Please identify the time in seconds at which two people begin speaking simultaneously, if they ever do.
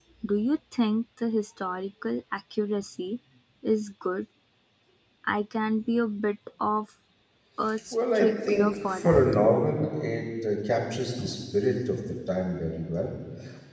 7.9 s

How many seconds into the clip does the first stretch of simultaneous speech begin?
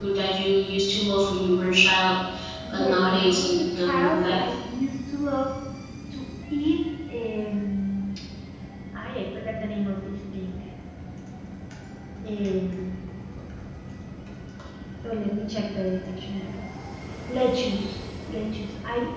2.7 s

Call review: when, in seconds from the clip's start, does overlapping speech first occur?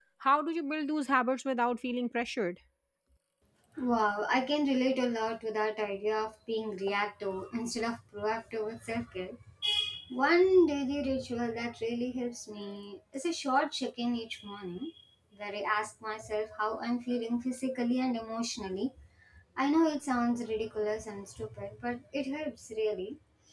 none

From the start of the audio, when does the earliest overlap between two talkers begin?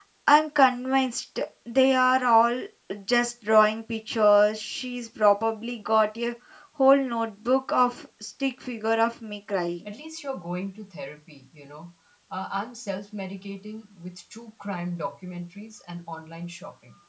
none

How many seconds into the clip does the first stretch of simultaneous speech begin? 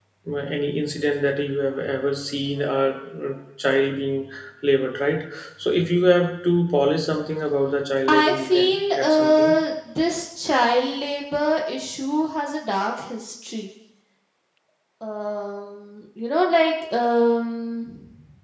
8.1 s

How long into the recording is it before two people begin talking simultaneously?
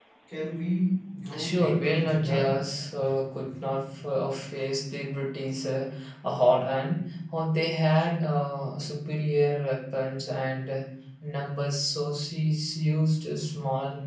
1.3 s

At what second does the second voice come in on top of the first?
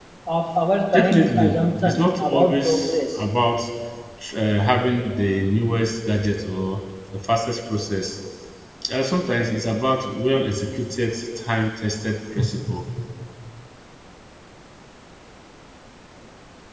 0.9 s

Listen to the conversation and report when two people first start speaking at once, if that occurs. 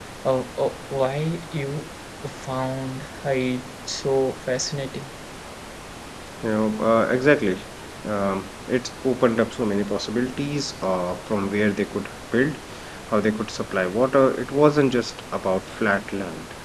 none

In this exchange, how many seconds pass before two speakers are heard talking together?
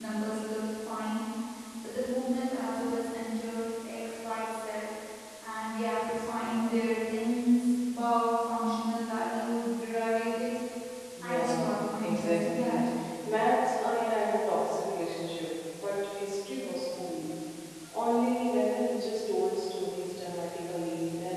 11.2 s

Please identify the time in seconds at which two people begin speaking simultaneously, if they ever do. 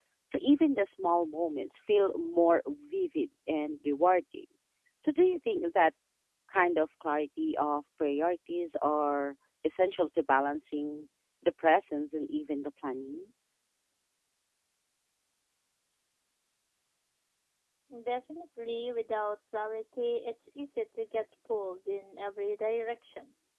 none

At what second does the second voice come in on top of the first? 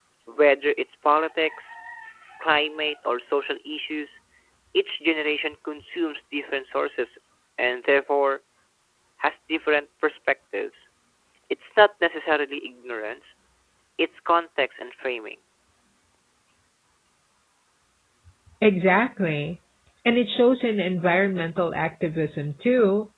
none

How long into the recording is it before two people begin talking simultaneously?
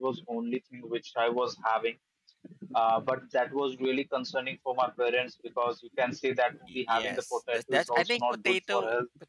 6.7 s

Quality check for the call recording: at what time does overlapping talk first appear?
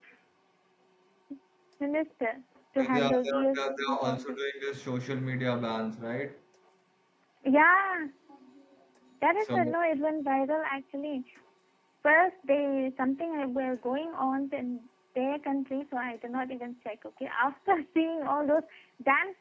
2.8 s

